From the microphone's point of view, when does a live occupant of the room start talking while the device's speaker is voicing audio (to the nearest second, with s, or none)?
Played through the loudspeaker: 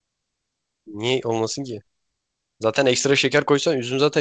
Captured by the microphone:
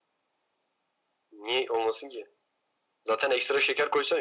none